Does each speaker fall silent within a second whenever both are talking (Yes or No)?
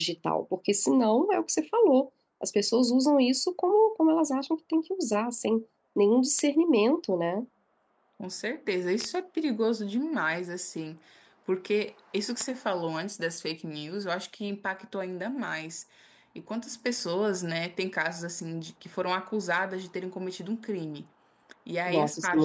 Yes